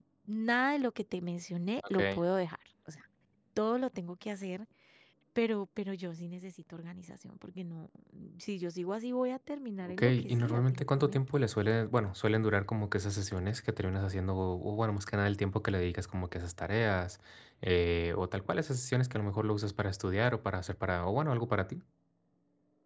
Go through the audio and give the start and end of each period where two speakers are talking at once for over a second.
9.9-11.2

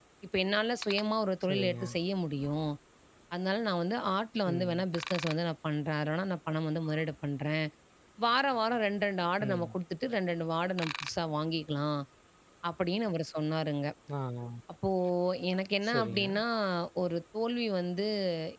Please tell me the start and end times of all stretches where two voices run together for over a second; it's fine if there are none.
none

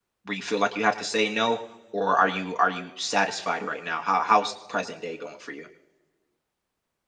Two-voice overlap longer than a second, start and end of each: none

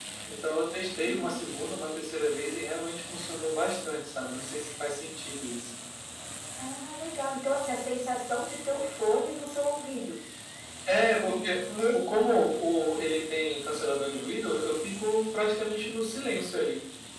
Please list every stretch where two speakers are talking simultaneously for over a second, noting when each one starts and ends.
none

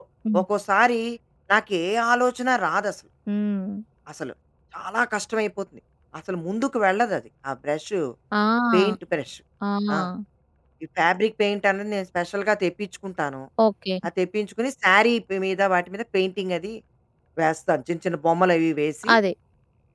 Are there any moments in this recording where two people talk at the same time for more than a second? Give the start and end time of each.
none

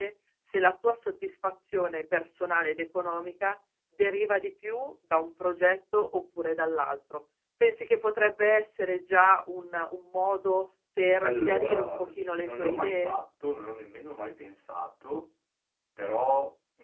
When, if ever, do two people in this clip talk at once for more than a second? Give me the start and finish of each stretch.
11.2-13.2

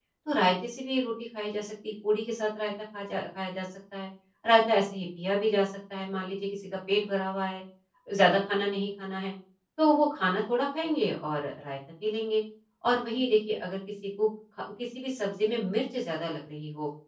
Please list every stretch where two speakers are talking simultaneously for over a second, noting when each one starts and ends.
none

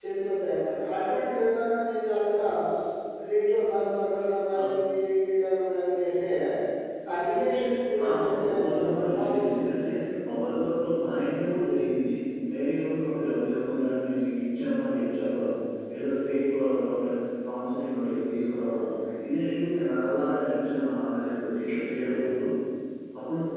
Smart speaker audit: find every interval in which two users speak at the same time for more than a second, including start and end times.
8.1-9.9

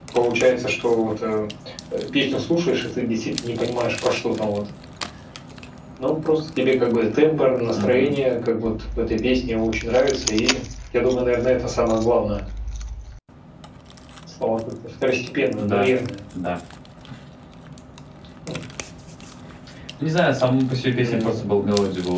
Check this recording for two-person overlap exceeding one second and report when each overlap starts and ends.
none

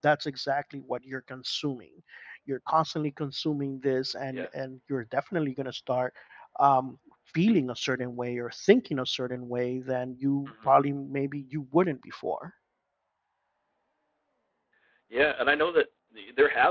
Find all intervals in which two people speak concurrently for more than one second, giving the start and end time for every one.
none

